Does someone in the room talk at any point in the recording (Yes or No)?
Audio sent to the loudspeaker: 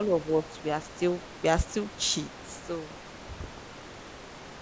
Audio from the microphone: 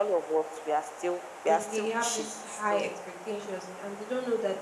Yes